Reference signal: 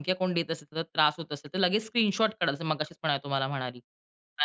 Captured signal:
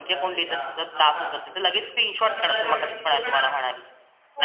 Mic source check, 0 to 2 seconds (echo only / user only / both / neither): both